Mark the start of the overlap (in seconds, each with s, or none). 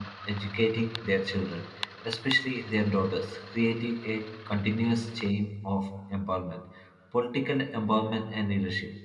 none